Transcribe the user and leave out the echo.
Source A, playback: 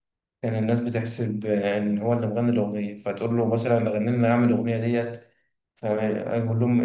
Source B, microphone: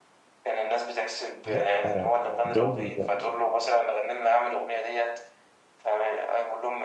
لأ آه، دول

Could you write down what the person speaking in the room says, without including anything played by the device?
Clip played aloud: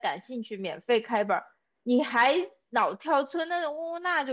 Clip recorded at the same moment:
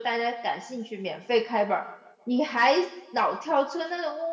none

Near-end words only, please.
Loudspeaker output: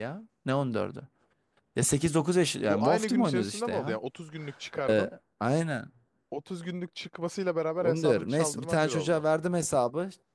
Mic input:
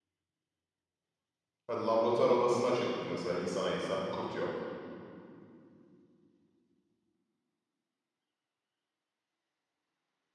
Ha, Laboratuvar odasını açıyorduk biz mesela insana insan. Kurt yok.

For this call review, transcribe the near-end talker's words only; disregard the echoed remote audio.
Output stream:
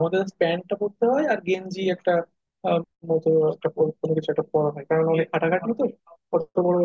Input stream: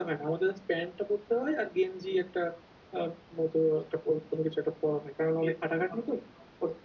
none

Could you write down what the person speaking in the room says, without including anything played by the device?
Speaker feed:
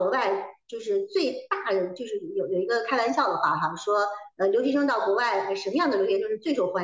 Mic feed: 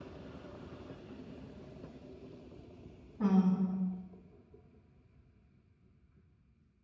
嗯，

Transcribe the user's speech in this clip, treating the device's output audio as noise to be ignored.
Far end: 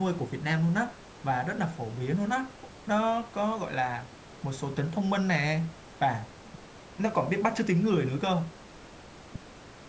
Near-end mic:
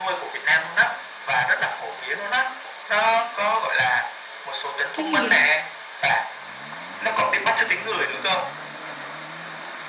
chim gì vậy

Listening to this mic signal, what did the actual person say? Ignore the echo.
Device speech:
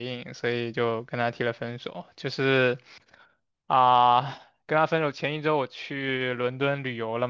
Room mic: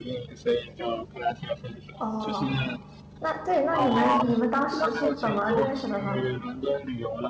哦，那对，那你们你们当时是怎么认识的呢？

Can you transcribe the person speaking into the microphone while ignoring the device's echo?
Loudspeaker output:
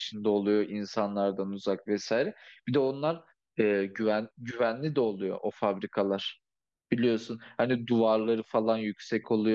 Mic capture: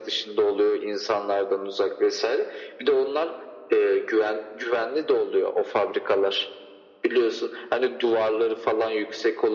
none

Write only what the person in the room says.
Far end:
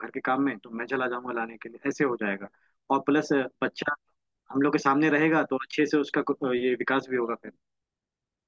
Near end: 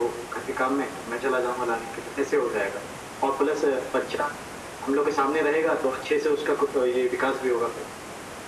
none

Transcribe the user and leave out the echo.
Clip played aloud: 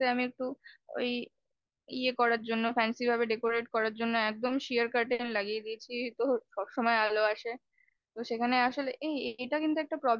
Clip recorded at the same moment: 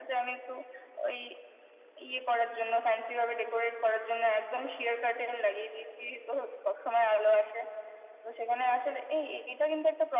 none

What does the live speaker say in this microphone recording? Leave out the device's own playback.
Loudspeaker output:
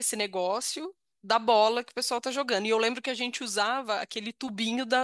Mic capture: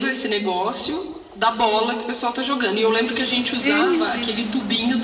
Uhum,

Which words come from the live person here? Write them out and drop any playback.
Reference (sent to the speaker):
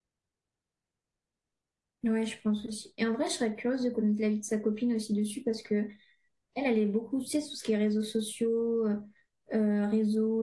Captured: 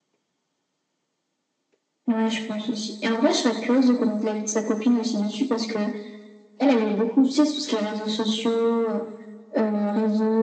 none

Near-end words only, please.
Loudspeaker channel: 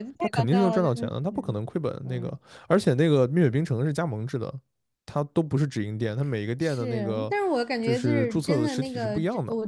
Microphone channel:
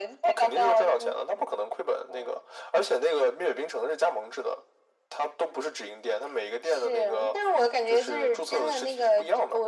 none

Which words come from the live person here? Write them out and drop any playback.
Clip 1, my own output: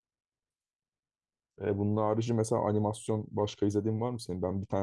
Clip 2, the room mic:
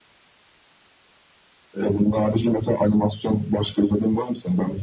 none

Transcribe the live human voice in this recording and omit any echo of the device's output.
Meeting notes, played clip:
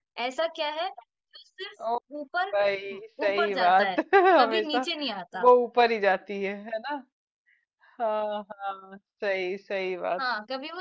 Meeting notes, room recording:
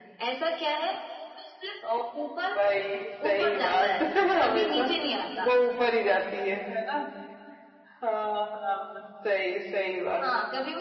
none

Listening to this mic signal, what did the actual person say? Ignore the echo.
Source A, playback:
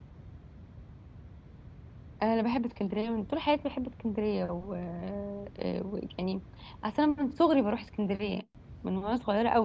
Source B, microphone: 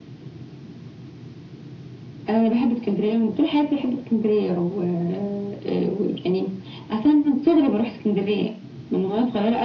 none

